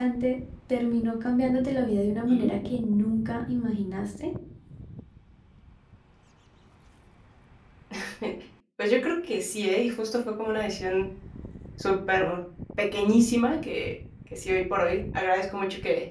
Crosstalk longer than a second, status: none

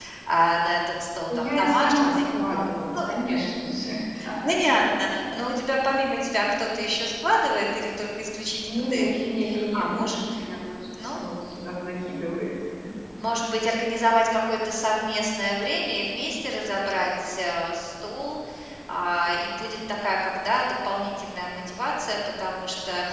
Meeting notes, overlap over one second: present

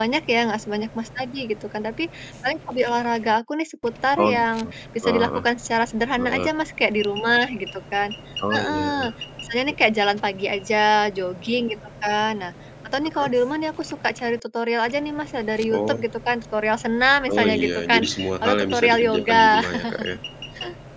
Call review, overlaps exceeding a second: present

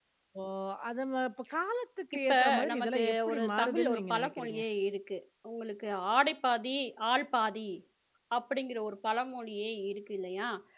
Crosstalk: present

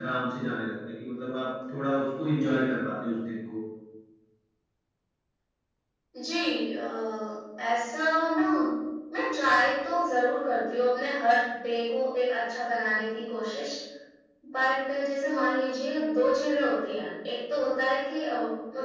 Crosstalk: none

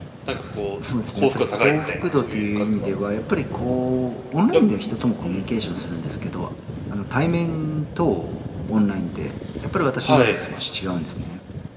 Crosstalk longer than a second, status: present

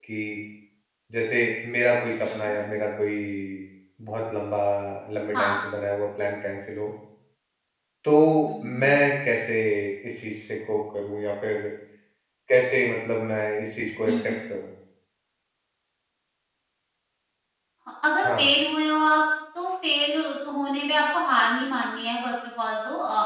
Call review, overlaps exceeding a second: none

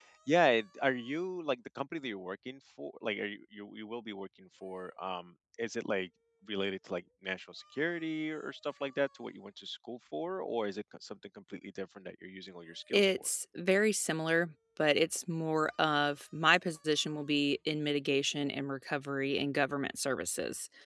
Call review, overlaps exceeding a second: none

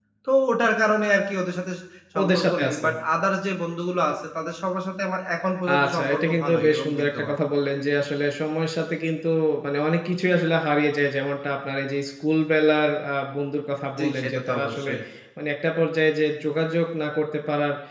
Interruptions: present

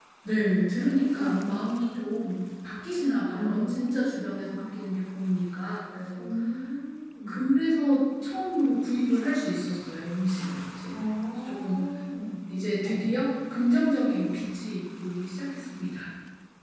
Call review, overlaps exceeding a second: present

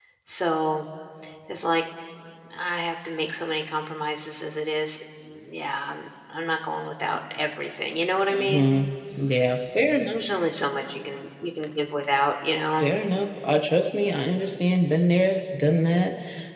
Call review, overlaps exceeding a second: none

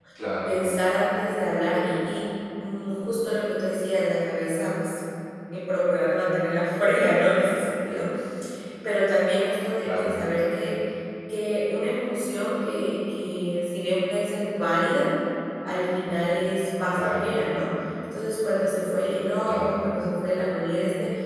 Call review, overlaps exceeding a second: none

